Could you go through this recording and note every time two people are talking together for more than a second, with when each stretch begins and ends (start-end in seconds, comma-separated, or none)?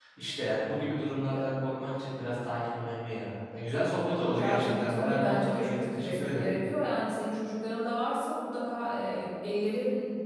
4.3-6.5